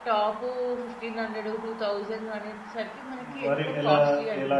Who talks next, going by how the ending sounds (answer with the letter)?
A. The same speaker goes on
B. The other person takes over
B